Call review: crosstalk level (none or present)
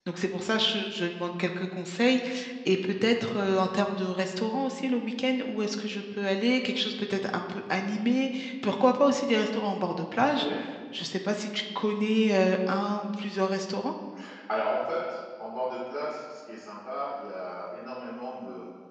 none